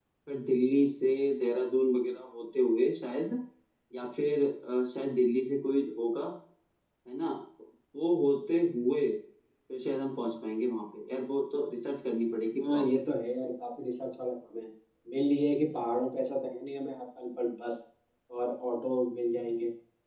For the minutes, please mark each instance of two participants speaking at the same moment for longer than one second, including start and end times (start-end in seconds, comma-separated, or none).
none